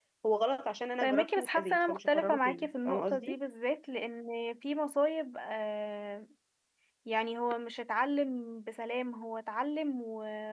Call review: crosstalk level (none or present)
present